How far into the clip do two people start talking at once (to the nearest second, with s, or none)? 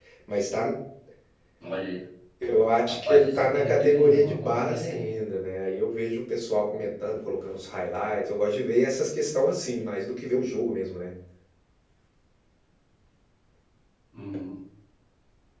3 s